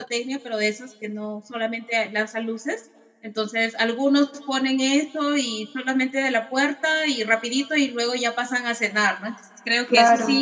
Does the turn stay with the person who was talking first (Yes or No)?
Yes